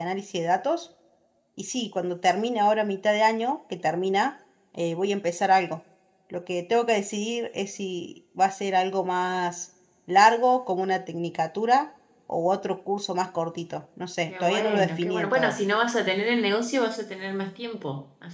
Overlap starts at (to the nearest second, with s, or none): 14 s